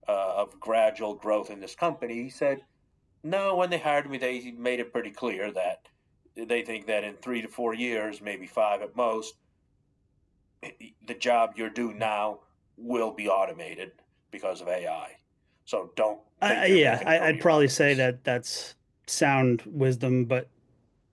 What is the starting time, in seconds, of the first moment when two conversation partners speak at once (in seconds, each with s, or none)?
16.4 s